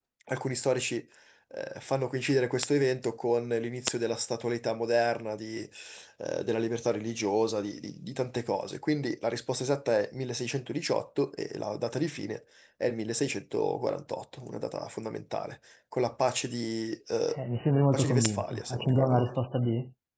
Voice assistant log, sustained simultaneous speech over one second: present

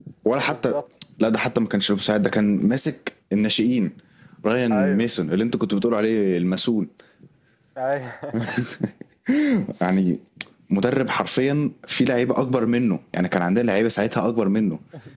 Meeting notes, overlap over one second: none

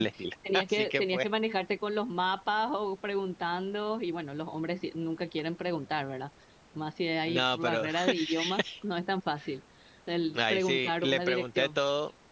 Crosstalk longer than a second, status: present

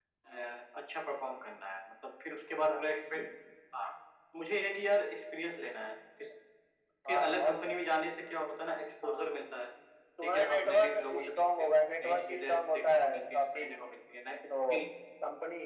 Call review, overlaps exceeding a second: present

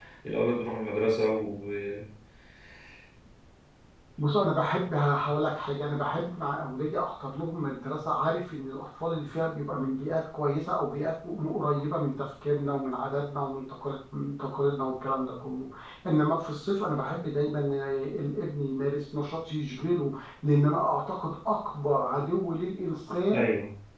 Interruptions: none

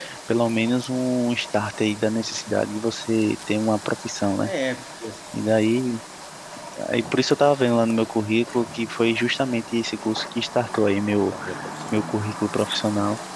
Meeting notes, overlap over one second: none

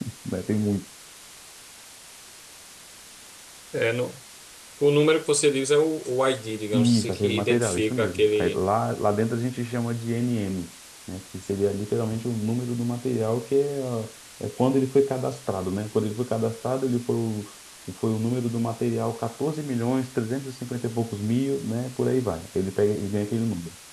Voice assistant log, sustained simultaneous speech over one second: present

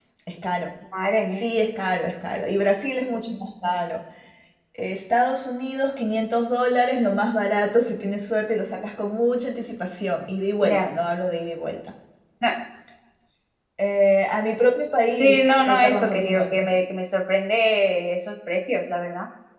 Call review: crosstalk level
present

